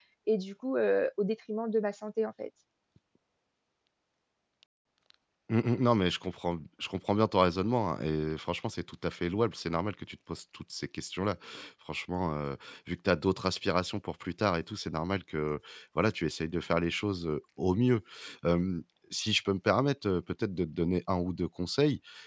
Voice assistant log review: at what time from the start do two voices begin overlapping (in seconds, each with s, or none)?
none